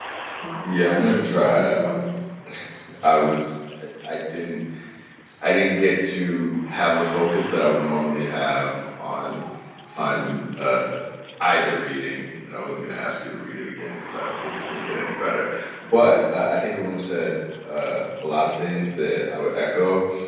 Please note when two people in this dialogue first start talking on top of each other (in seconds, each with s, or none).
0.6 s